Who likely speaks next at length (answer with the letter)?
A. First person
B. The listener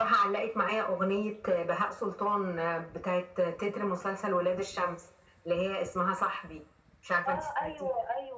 B